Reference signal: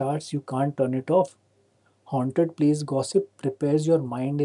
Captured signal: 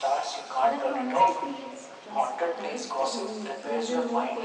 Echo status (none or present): present